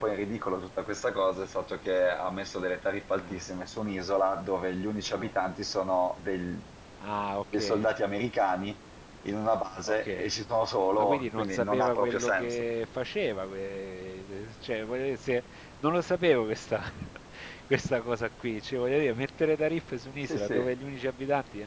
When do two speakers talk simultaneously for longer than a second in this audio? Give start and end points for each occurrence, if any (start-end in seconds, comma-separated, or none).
11.0-12.6